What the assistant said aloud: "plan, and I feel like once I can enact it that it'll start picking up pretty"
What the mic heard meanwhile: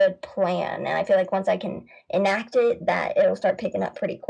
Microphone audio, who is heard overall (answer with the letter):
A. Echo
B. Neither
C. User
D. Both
A